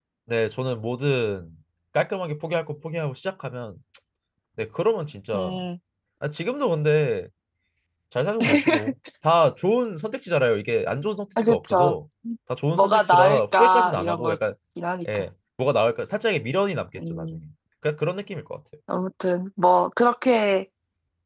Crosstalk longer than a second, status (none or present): present